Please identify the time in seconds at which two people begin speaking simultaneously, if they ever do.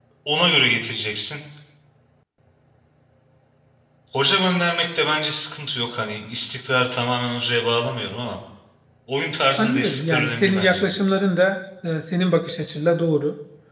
9.6 s

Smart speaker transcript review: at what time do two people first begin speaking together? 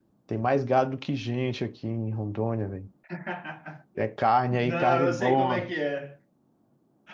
4.5 s

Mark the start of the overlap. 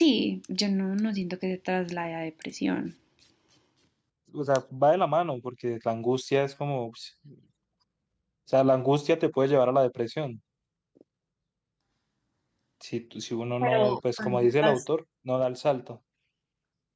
13.6 s

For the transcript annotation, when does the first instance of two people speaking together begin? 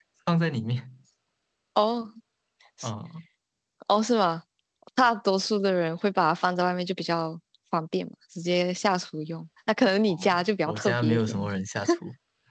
10.1 s

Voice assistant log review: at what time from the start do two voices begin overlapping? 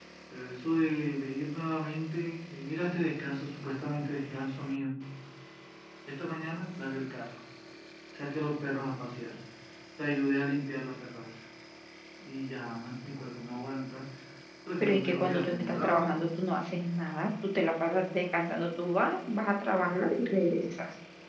14.8 s

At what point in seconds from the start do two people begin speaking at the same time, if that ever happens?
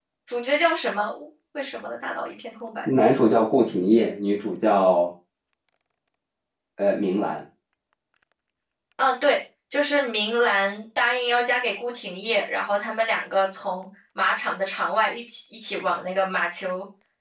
none

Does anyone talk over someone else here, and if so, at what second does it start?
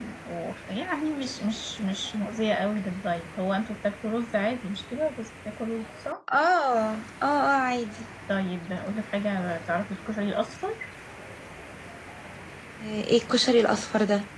none

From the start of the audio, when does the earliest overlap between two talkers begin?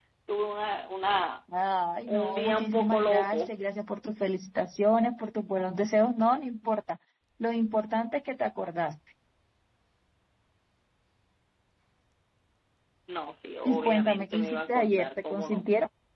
2.1 s

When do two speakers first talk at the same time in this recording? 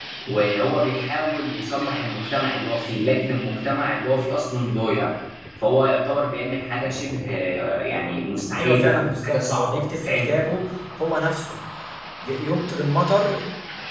8.6 s

